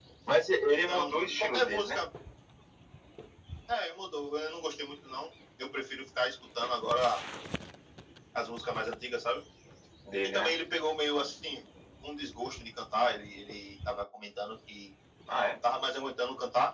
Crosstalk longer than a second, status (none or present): present